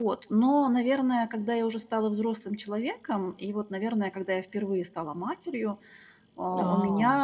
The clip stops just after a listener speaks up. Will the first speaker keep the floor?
Yes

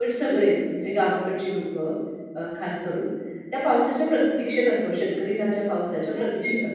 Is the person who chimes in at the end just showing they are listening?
Yes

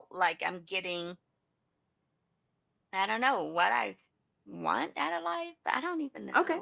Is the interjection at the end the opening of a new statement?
Yes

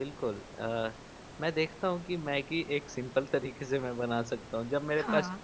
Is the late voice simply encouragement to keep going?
Yes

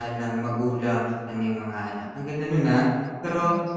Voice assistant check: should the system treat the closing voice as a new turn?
No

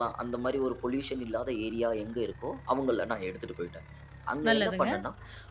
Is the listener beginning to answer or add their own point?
No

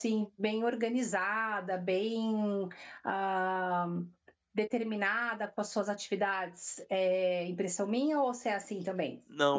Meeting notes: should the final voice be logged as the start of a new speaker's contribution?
Yes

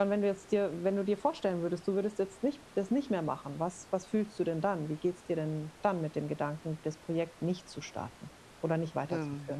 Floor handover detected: Yes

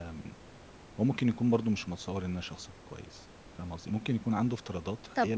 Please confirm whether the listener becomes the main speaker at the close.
No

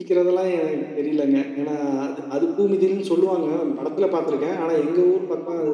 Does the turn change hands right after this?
No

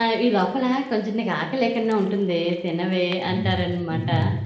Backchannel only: No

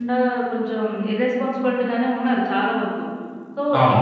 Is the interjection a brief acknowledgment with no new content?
Yes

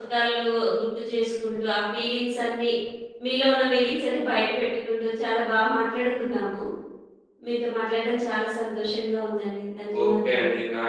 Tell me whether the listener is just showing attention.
No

